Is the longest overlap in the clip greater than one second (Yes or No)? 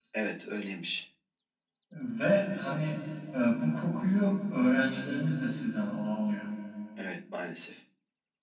No